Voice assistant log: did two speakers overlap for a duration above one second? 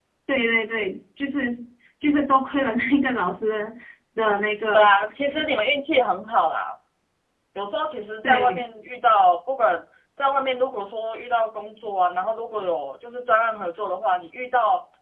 No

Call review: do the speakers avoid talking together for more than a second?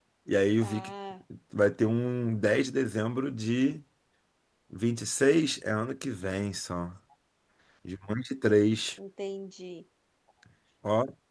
Yes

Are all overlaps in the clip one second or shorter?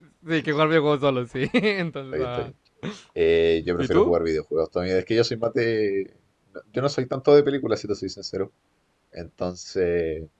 Yes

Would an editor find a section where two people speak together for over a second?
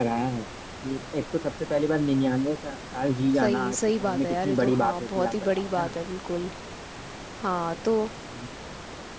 Yes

